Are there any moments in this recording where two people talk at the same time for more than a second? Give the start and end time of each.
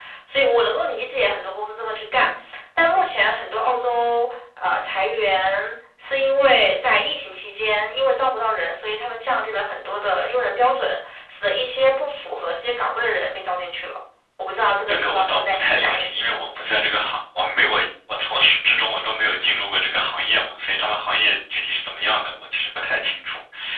14.9-16.4

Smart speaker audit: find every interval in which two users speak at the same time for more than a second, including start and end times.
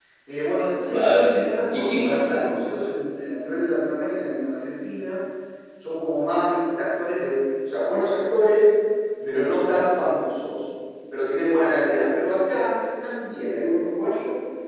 0.9-2.5

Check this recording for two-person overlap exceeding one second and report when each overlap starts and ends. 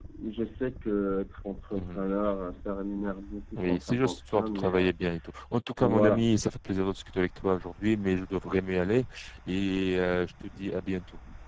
3.6-4.9

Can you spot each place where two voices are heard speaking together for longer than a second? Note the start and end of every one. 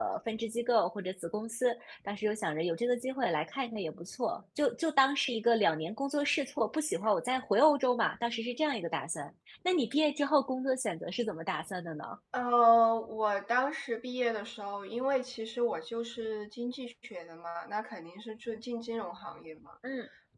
none

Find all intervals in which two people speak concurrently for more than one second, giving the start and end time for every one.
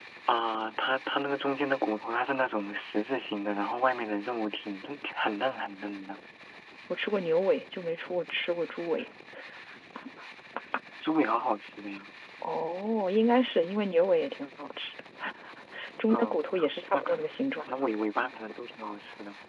none

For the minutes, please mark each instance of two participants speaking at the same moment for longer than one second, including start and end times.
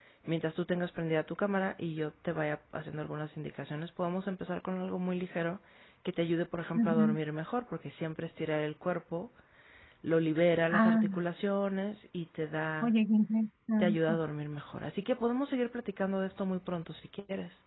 none

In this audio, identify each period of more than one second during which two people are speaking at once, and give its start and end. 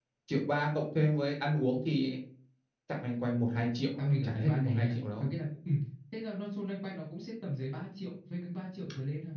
4.0-5.3

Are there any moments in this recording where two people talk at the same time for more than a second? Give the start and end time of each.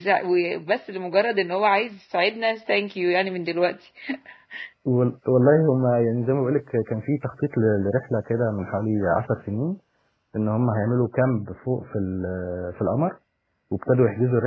none

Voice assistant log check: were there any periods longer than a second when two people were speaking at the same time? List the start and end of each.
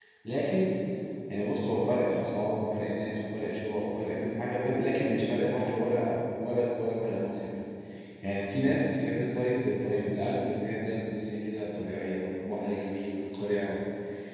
none

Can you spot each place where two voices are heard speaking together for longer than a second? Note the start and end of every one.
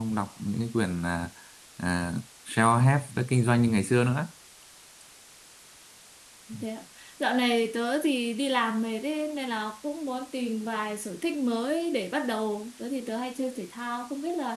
none

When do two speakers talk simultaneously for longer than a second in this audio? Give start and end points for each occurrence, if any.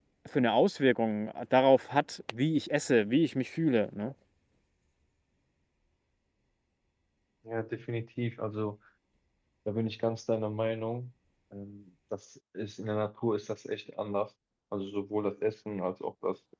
none

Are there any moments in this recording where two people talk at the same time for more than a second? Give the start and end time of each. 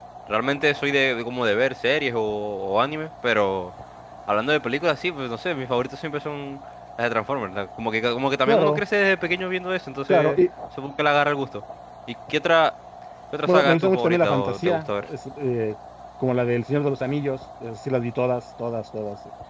13.5-15.0

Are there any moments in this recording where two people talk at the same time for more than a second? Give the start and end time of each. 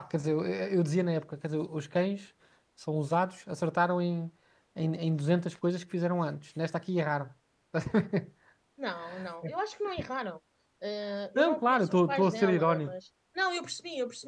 11.4-12.9

